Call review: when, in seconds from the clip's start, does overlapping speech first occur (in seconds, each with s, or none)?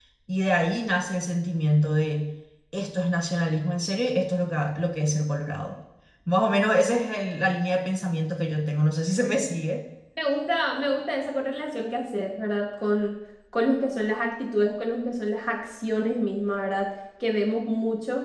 none